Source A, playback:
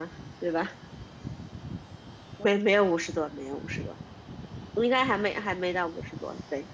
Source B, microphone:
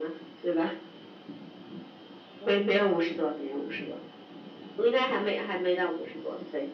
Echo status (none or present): present